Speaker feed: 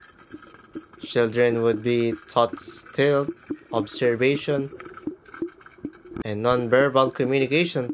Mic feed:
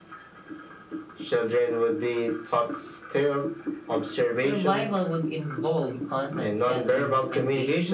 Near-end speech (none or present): present